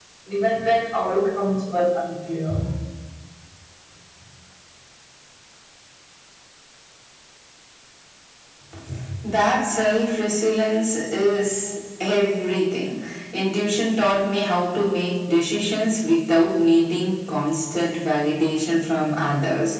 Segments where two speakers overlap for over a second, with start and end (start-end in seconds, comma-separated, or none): none